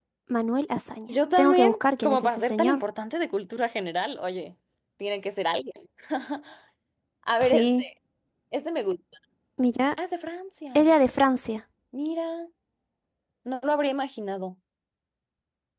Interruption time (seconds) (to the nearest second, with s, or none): 1 s